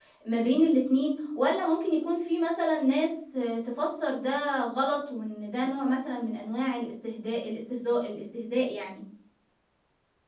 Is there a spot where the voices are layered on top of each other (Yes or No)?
No